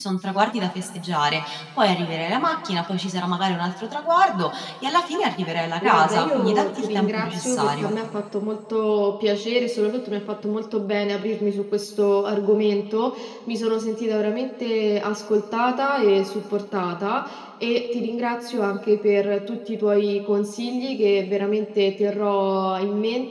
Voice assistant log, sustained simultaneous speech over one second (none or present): present